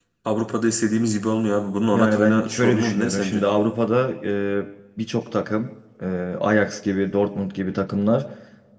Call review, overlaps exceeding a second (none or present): present